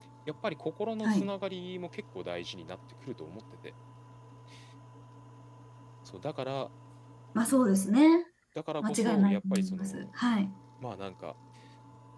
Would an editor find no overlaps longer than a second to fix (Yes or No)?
No